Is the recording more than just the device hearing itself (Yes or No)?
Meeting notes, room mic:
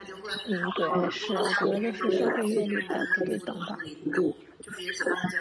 Yes